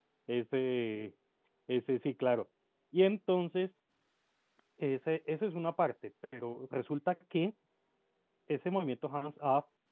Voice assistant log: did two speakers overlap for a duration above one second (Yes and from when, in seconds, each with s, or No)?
No